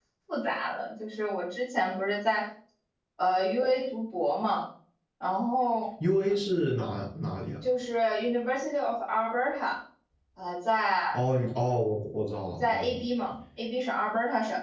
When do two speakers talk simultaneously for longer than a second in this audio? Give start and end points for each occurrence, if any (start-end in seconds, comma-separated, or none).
none